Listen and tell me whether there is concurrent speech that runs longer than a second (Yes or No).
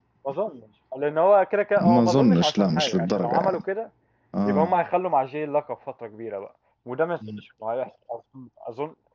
Yes